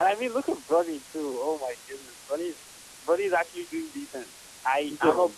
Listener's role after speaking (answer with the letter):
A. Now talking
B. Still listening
B